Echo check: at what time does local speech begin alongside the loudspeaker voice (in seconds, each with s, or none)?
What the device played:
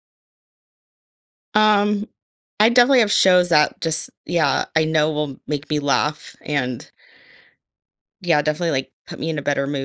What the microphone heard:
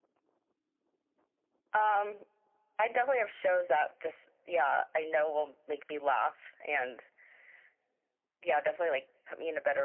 none